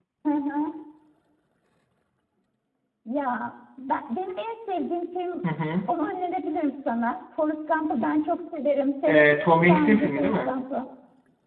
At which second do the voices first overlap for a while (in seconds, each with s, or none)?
9.1 s